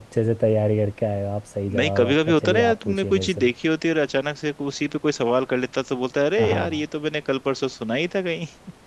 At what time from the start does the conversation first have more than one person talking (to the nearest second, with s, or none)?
2 s